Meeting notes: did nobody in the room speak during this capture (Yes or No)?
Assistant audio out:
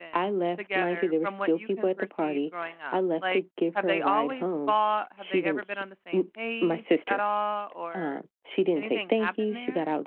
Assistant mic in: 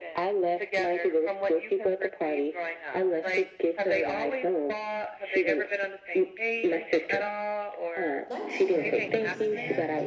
No